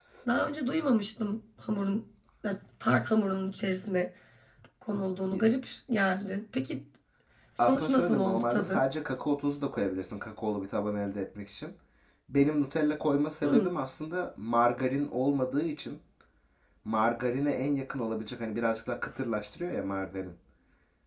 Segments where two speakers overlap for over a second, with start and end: 7.6-8.8

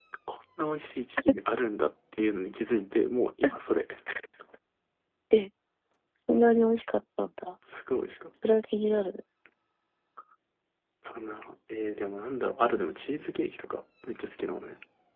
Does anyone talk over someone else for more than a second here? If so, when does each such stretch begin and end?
none

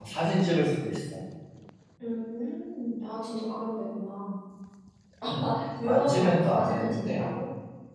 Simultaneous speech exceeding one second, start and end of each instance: 5.8-7.2

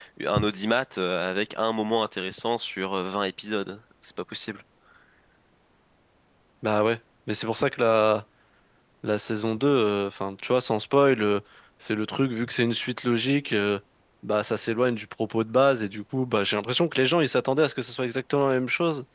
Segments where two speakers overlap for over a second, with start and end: none

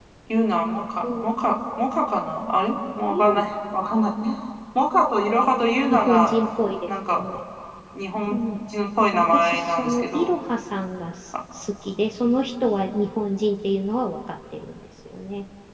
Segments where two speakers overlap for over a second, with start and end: 9.1-10.3

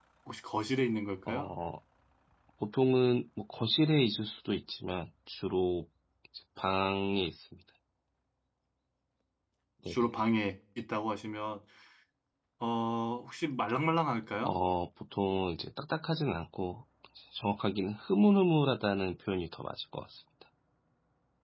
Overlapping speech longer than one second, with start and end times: none

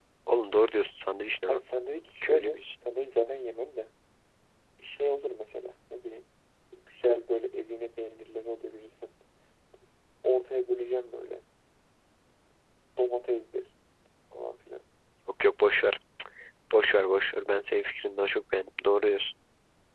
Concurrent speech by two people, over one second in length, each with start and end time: none

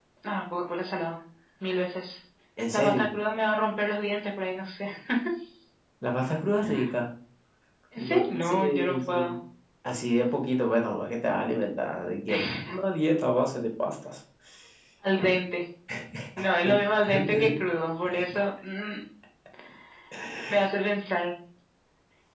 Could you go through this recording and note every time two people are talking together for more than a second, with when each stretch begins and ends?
8.0-9.4

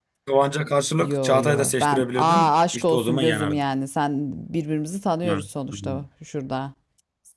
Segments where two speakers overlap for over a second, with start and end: 1.0-3.6

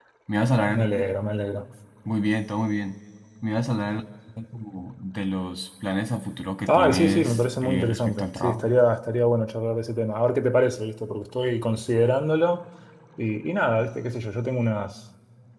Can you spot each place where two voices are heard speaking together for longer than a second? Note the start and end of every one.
6.7-8.7

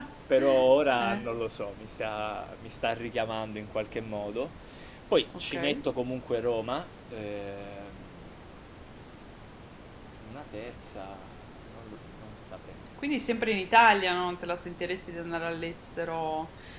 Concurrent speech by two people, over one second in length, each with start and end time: none

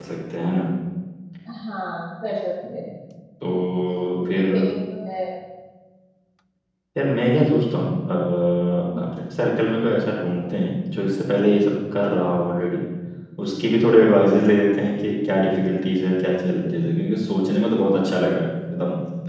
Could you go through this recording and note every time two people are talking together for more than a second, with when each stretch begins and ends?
none

